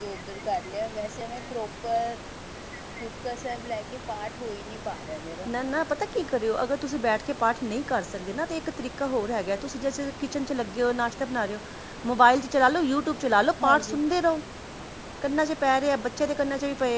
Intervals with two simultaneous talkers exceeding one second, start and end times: none

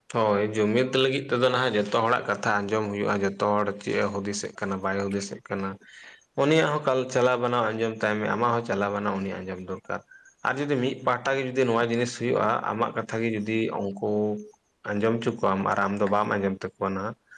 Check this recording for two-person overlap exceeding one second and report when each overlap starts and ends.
none

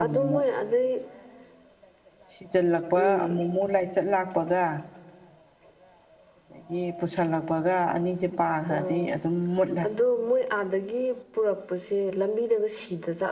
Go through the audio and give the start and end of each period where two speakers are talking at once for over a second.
none

